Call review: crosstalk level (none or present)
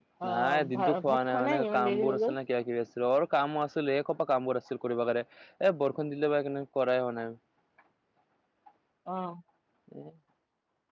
present